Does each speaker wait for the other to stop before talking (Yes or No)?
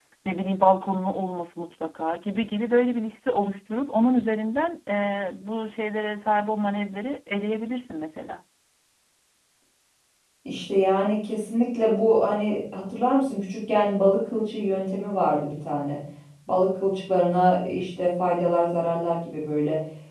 Yes